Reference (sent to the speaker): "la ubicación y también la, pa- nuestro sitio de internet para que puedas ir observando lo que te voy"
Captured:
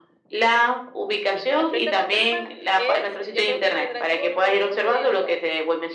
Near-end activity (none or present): present